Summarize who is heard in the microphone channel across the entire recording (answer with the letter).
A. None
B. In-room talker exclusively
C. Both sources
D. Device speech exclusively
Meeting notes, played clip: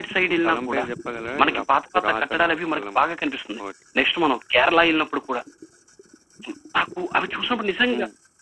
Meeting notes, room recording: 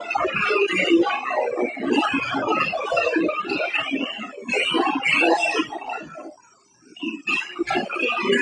D